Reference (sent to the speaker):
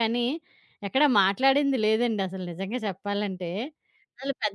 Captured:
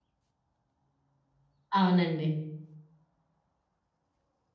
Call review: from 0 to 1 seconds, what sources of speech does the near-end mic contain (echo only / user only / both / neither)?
neither